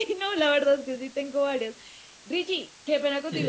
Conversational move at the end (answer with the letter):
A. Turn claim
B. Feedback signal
B